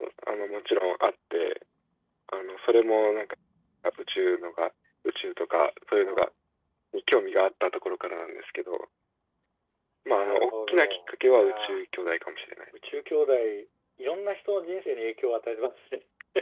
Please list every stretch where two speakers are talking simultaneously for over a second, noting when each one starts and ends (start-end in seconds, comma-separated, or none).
10.1-11.8